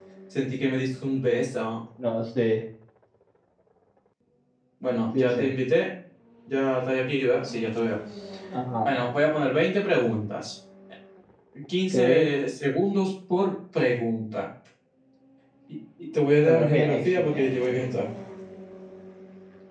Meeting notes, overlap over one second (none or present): present